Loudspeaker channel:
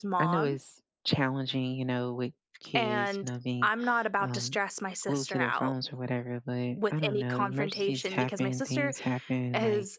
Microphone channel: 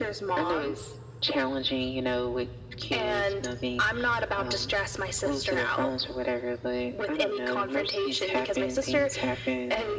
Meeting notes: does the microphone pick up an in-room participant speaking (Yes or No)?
No